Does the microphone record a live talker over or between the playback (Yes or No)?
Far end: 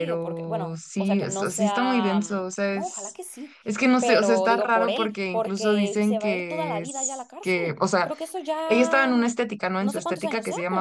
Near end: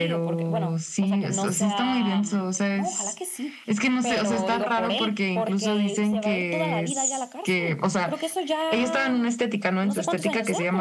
No